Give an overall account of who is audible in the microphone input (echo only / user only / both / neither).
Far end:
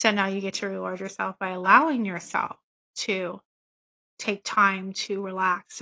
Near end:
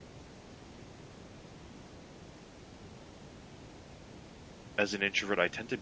user only